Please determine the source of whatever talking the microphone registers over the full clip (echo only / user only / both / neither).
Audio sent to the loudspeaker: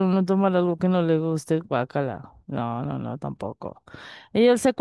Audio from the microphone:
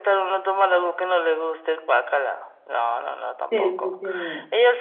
both